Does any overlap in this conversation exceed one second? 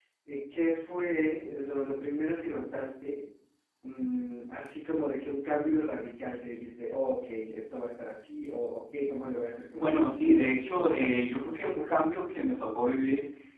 Yes, from 9.7 s

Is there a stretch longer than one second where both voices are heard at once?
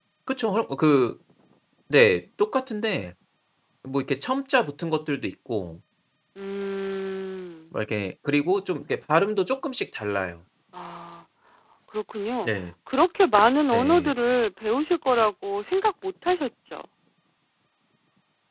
No

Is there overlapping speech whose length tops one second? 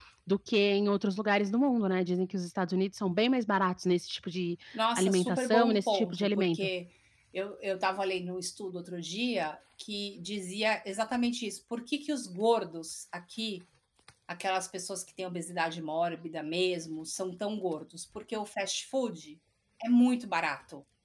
Yes, from 5.0 s

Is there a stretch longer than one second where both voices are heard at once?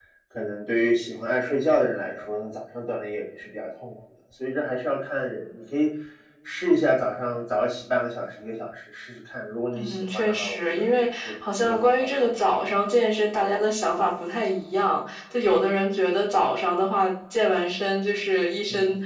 Yes, from 9.7 s

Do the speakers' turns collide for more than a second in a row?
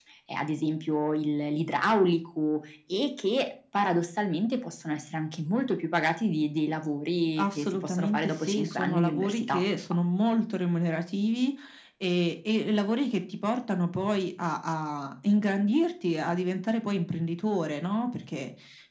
Yes, from 7.4 s

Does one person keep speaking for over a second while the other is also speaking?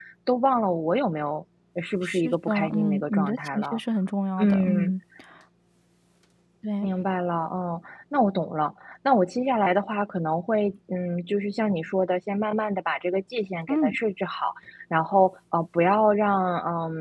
Yes, from 2.0 s

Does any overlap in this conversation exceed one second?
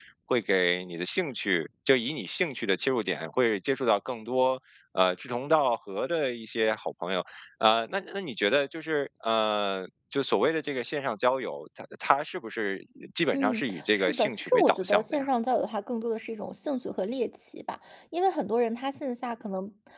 Yes, from 13.3 s

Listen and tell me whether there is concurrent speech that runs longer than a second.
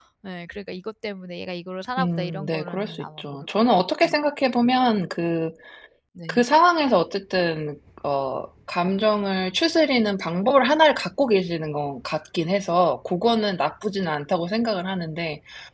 Yes, from 2.0 s

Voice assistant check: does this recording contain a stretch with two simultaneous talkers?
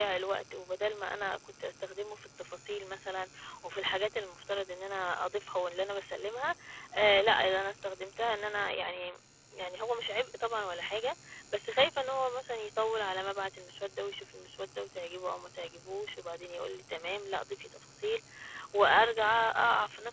No

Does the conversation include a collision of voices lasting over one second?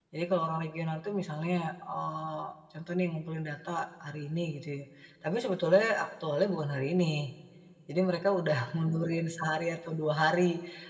No

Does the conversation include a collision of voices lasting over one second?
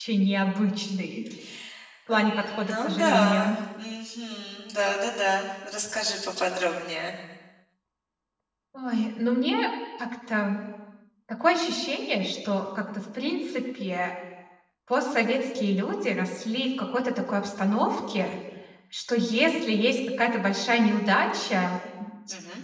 Yes, from 2.2 s

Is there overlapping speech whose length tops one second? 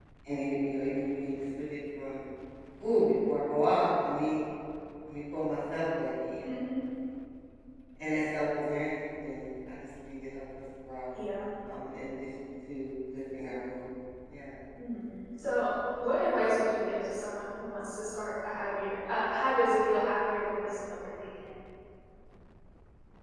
No

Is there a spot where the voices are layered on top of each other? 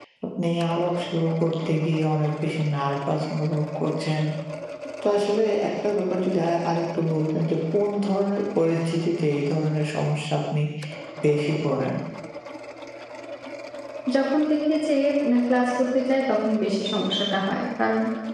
No

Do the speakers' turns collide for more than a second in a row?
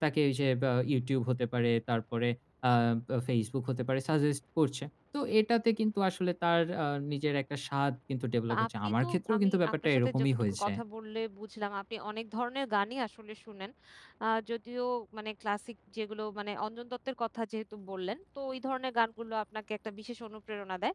Yes, from 8.5 s

